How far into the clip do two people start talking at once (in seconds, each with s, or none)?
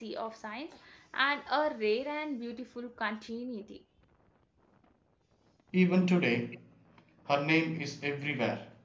none